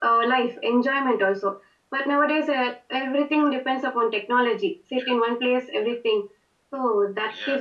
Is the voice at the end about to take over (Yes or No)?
Yes